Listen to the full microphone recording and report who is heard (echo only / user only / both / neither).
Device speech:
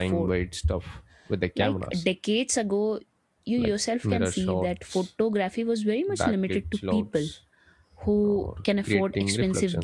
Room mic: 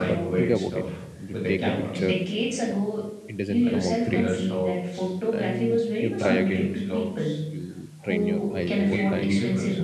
both